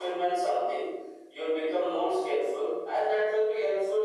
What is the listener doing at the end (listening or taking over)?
listening